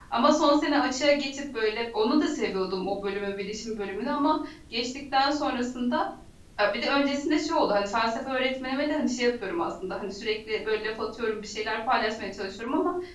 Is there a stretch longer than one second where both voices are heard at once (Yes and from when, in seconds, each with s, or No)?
No